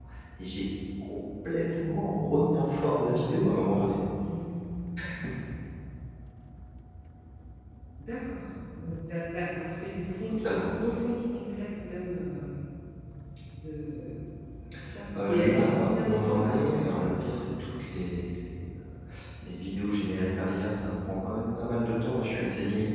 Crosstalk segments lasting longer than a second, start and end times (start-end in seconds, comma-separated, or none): 15.2-17.1